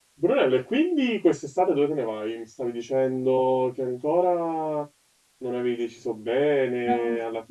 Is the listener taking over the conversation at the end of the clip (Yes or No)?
No